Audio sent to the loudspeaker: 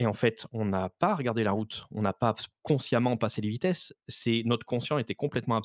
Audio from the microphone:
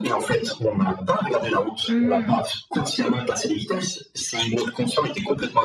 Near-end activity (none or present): present